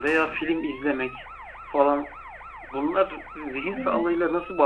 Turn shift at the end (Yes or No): No